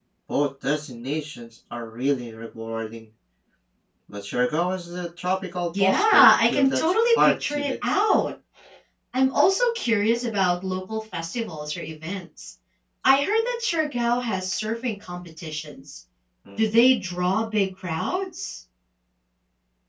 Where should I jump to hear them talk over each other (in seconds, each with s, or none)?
5.7 s